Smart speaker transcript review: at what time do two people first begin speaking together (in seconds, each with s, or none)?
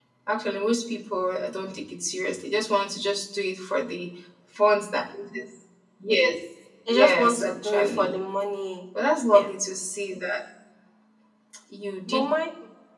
6.9 s